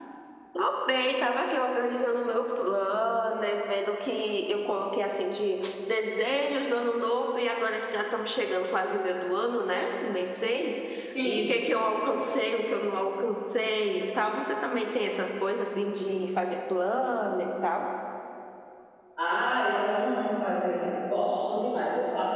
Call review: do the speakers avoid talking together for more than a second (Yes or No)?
Yes